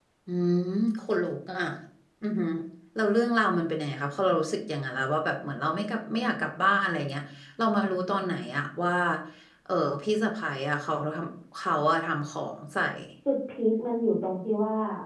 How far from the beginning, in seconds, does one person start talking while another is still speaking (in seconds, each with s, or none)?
none